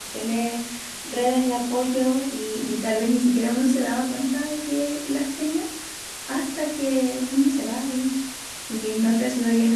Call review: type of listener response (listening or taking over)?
listening